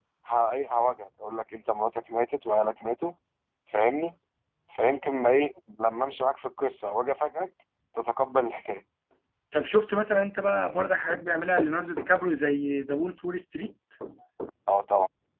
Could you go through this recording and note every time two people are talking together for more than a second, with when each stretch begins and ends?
none

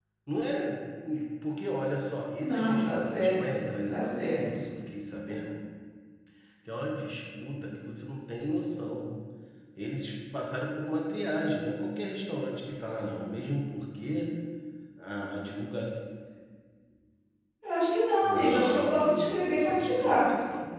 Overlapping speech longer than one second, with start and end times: 2.4-4.4, 18.2-20.3

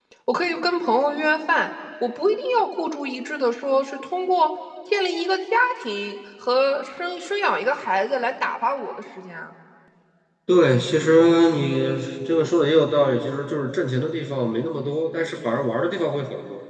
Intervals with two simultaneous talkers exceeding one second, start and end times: none

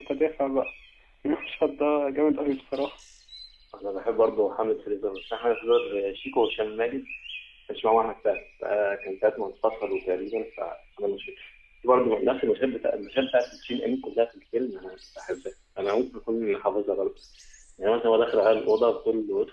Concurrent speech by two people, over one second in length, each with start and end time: none

